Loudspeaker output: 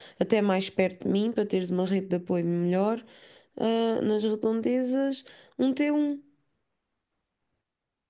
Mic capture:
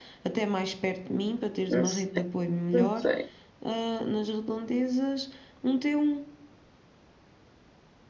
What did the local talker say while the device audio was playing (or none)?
não sei, não sei.